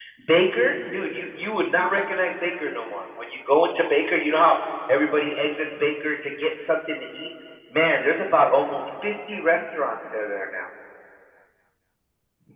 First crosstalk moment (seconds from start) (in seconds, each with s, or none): none